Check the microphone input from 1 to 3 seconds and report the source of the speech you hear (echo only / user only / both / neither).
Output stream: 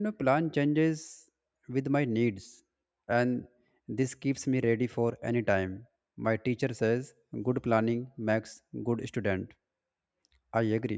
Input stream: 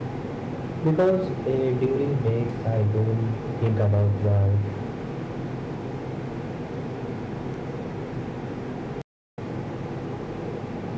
user only